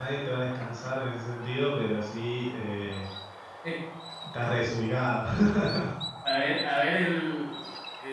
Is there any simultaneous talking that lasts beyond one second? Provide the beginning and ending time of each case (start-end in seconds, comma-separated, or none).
none